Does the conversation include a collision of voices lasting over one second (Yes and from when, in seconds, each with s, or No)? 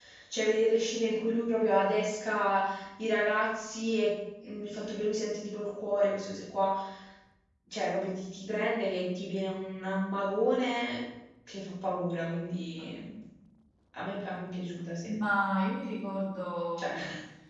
No